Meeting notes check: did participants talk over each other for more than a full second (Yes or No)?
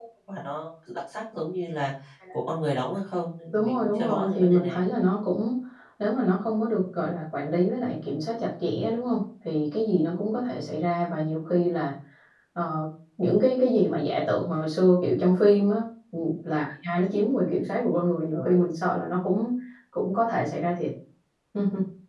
Yes